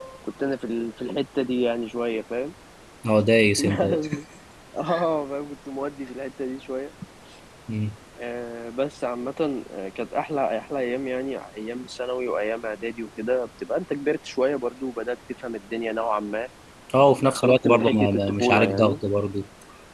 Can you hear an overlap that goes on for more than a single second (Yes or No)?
Yes